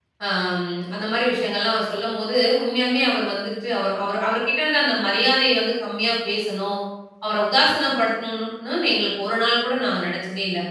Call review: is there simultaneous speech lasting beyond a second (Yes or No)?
No